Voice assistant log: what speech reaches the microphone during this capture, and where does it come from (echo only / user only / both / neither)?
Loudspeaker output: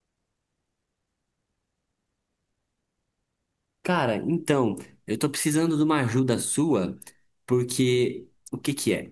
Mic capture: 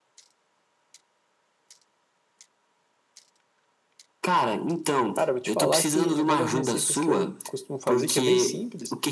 both